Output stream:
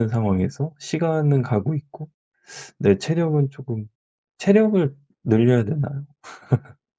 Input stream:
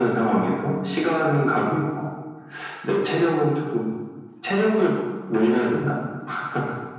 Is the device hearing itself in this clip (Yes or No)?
Yes